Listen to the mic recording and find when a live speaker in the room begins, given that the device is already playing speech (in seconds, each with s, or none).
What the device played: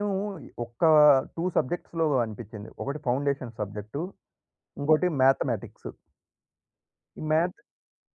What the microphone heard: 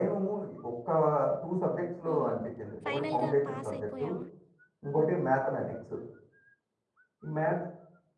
2.0 s